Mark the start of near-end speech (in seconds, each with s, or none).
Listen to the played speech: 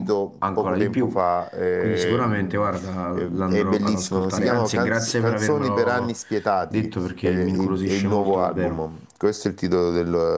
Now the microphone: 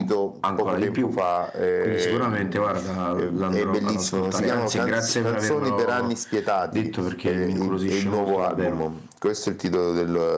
none